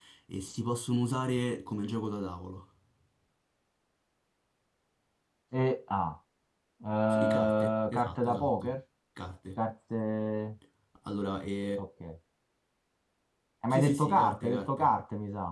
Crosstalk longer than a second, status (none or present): present